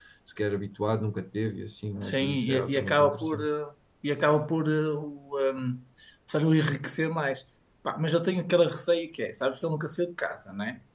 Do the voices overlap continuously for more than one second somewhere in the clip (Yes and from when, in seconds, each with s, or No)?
Yes, from 2.0 s